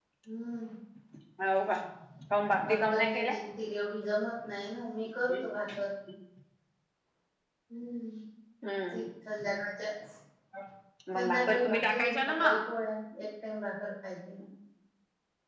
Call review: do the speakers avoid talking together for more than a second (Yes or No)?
No